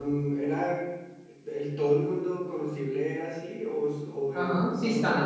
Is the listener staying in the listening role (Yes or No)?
No